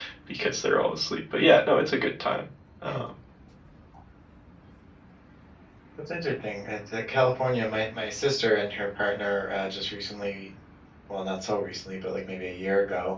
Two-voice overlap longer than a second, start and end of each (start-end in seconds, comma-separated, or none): none